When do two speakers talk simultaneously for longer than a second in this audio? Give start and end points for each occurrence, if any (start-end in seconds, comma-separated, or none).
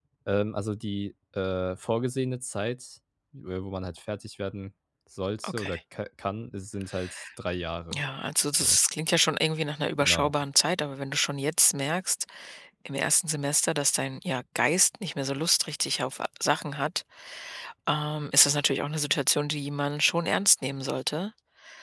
none